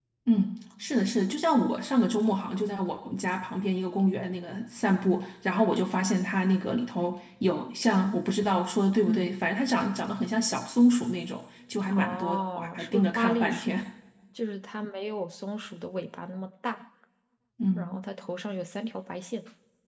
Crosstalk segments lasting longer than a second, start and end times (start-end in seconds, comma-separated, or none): 11.9-13.8